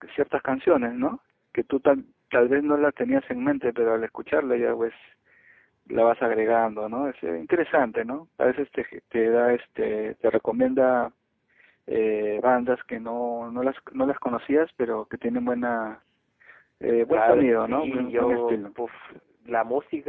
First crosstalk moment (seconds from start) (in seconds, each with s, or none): 17.1 s